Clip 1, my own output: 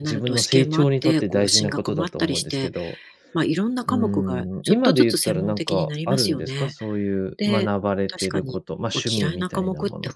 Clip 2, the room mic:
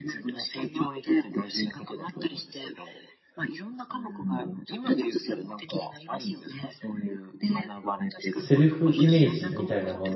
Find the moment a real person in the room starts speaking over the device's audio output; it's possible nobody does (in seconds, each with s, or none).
8.2 s